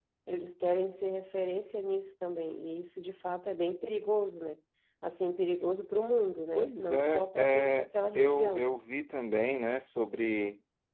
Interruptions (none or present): present